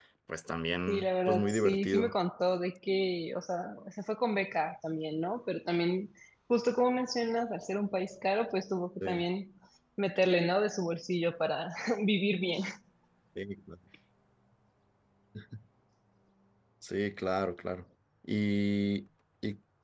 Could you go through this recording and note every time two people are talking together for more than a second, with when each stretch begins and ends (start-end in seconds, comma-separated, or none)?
0.9-2.1